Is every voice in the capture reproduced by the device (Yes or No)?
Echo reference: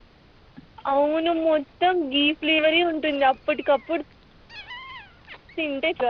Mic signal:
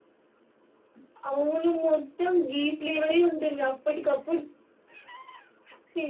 Yes